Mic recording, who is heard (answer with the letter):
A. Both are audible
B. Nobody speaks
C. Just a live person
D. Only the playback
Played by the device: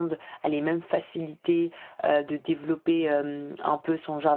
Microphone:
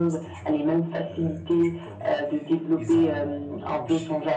A